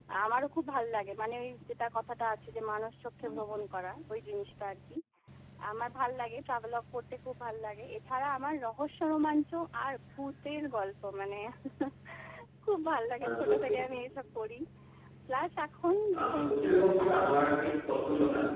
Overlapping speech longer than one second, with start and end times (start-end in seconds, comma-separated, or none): 16.2-17.7